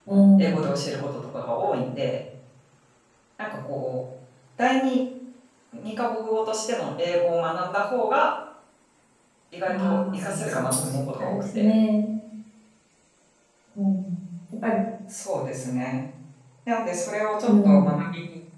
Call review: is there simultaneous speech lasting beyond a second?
Yes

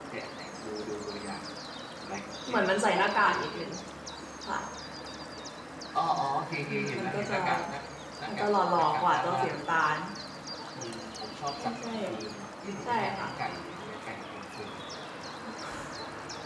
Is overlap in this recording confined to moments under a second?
No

